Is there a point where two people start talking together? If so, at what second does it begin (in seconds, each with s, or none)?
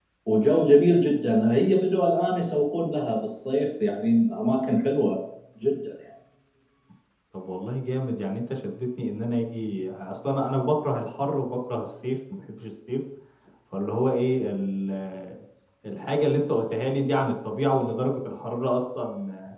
none